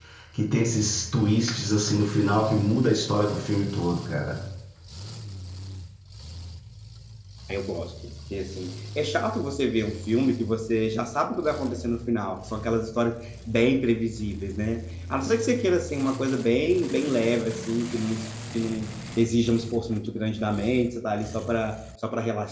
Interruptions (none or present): none